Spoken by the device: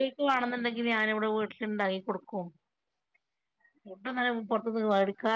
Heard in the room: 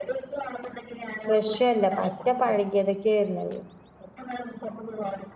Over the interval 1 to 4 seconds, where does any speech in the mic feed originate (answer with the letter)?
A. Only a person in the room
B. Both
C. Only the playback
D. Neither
B